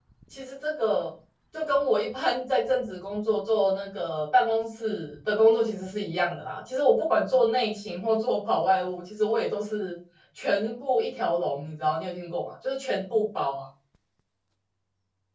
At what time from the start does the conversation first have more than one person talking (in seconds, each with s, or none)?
none